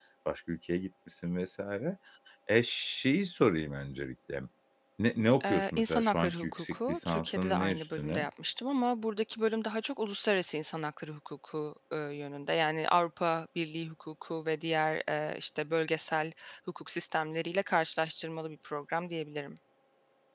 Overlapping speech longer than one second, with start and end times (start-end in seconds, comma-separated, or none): 5.4-8.2